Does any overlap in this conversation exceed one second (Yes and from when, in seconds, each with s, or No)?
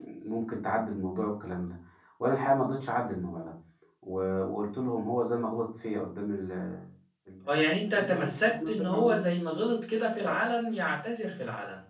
Yes, from 7.8 s